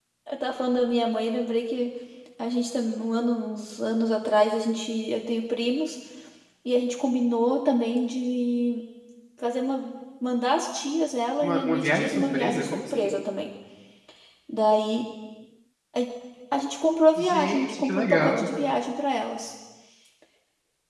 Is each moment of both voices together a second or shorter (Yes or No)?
No